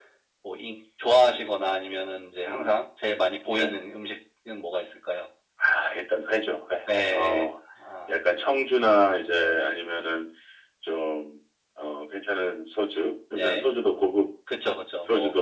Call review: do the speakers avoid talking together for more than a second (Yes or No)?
Yes